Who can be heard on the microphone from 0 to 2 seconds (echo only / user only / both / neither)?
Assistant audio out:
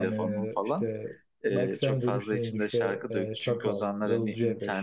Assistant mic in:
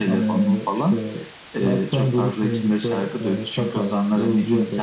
echo only